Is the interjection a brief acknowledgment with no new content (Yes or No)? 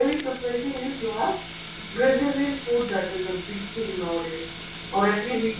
Yes